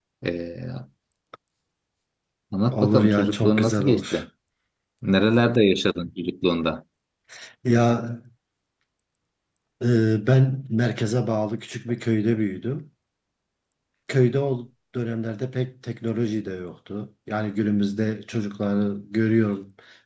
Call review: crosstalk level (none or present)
present